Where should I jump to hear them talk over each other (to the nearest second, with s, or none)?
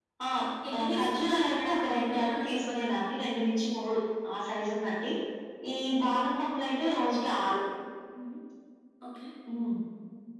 1 s